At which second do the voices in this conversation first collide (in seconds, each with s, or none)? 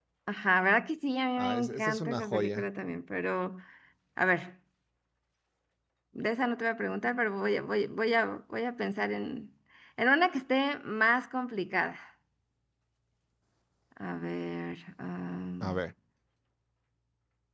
1.4 s